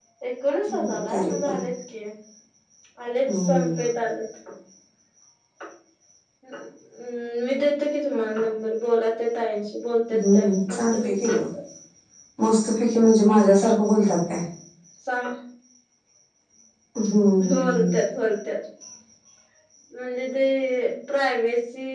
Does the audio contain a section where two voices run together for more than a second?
Yes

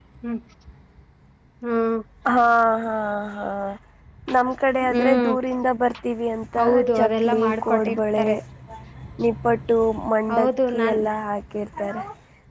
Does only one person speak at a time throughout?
No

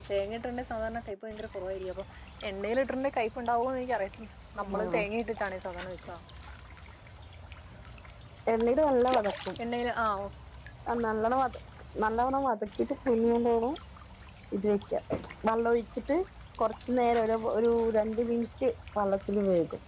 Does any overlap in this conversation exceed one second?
No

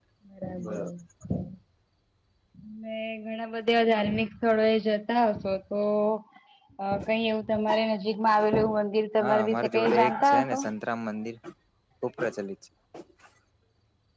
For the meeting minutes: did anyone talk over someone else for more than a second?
Yes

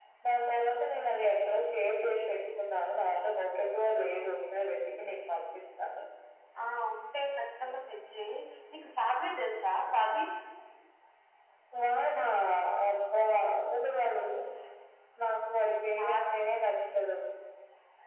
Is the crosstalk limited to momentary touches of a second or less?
Yes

